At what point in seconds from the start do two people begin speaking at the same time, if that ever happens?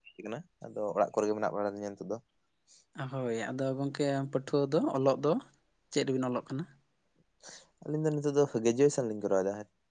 none

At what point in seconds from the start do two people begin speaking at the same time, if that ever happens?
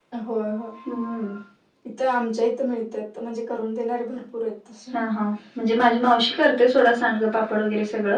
none

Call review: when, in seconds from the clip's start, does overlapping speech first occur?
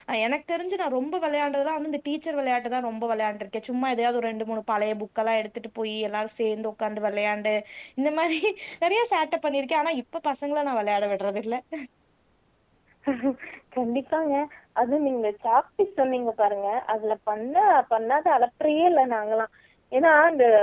none

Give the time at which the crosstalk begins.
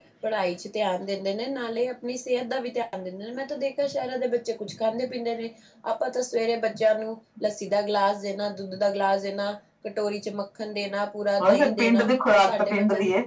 11 s

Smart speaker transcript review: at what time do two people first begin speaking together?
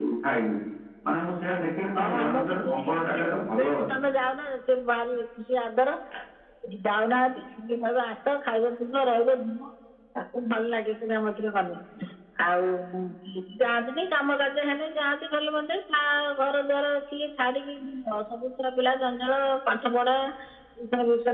2 s

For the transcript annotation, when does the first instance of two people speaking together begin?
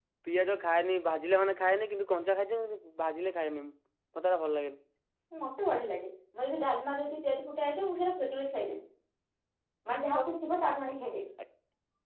none

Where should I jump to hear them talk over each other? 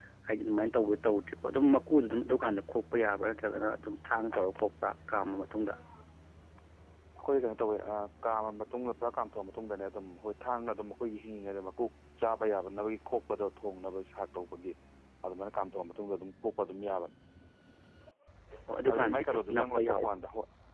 19 s

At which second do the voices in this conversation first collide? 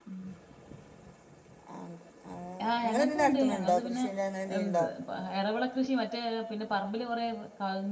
3 s

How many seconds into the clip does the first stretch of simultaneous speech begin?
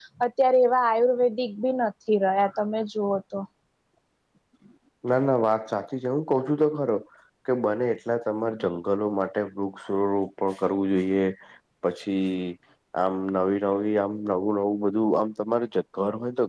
none

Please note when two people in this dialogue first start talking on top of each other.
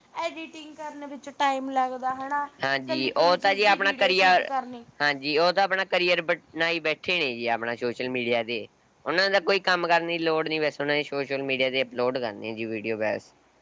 3 s

